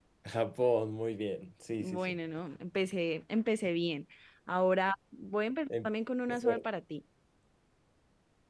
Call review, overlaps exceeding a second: none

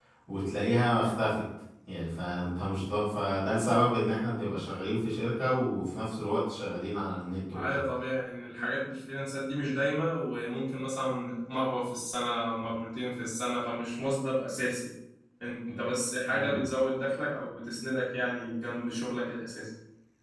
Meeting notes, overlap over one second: none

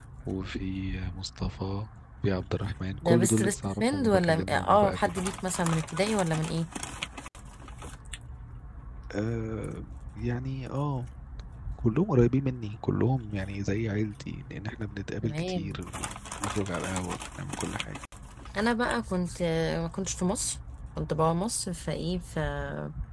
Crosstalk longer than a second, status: present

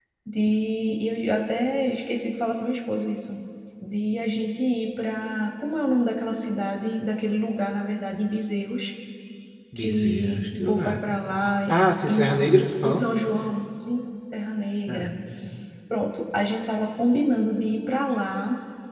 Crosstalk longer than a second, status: present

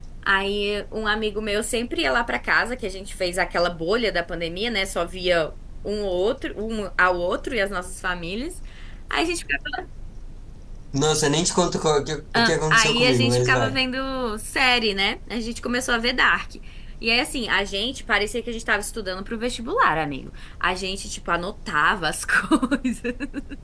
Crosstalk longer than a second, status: present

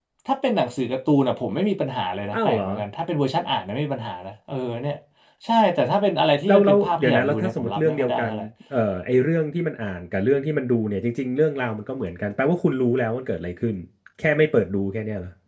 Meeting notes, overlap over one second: present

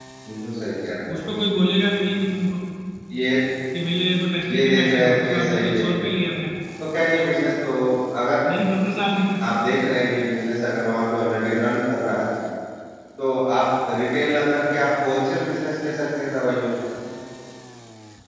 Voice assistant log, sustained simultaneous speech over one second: present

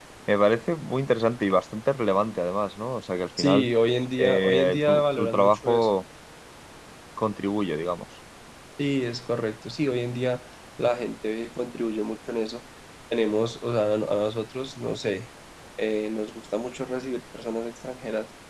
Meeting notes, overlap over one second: present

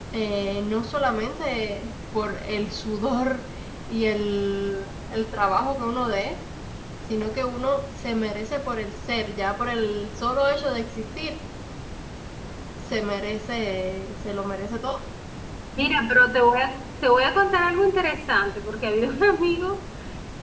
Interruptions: none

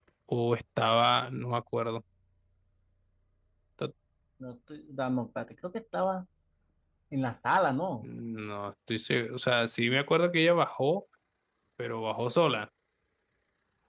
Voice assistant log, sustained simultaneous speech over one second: none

